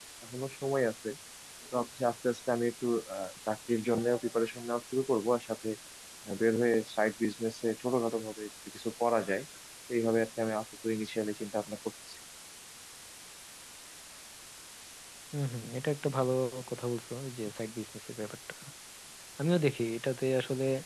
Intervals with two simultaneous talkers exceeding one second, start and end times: none

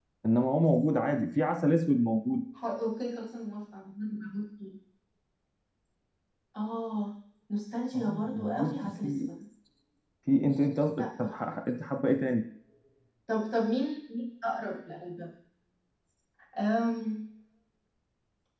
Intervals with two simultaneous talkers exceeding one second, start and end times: 8.0-9.3

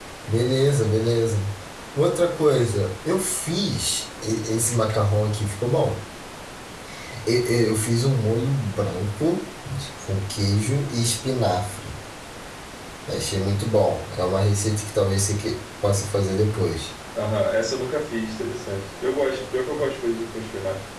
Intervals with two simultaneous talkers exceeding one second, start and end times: none

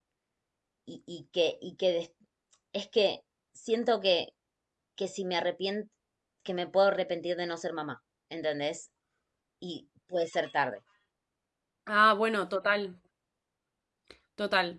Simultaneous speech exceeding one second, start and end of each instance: none

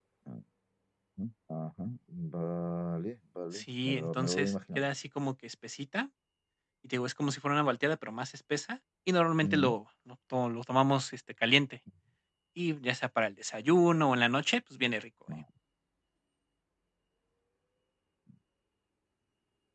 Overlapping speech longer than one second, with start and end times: 3.5-4.9

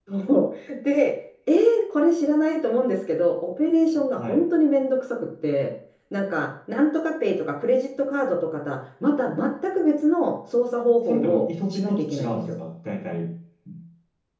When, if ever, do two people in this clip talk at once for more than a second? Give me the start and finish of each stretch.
11.1-12.4

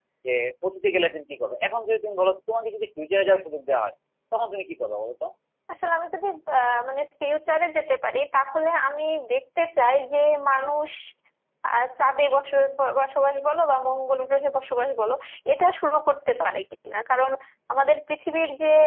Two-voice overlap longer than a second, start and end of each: none

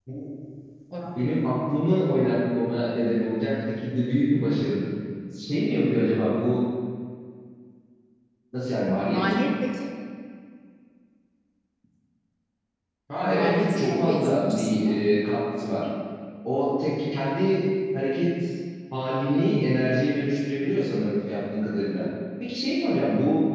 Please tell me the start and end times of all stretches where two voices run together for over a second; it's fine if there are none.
13.2-15.0

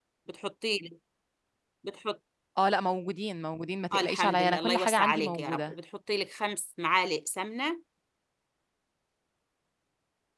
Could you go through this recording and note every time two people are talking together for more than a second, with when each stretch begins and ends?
3.9-5.7

